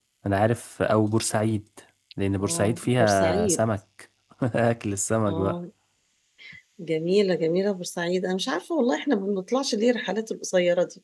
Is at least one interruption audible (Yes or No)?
Yes